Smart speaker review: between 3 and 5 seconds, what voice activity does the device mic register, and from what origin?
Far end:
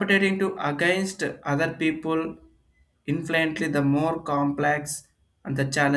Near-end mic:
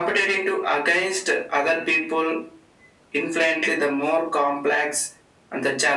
echo only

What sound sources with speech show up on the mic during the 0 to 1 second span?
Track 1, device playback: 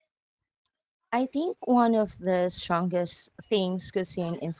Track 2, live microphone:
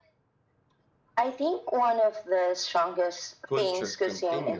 neither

